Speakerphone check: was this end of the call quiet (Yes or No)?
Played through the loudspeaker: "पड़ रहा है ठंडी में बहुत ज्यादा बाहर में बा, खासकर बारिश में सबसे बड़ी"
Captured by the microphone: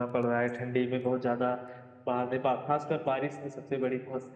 Yes